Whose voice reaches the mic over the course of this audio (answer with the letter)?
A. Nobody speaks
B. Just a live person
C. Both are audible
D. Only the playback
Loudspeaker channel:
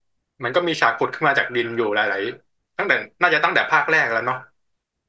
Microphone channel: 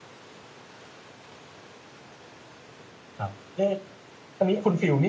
B